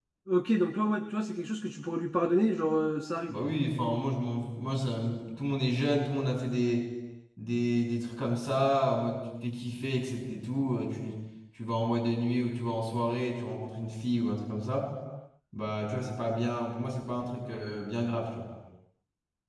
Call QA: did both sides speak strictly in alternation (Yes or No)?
Yes